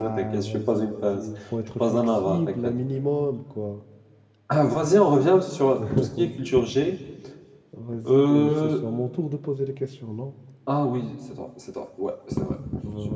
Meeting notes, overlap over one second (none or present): present